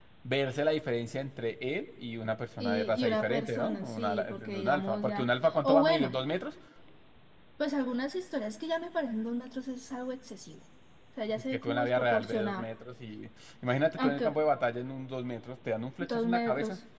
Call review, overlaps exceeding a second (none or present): present